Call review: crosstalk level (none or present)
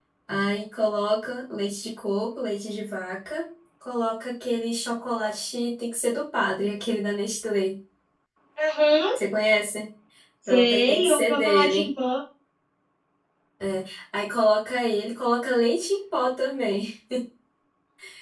present